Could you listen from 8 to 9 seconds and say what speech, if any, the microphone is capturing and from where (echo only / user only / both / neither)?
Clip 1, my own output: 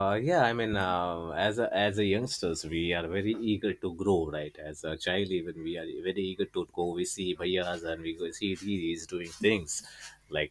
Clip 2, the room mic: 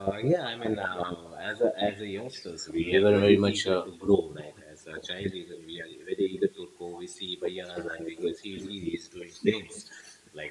echo only